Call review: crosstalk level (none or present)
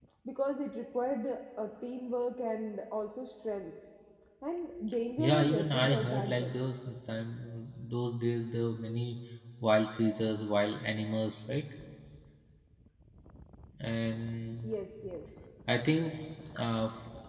present